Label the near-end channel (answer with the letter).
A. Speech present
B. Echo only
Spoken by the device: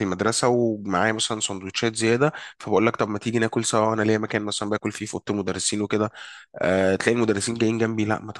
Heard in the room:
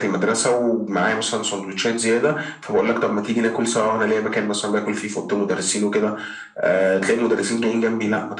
B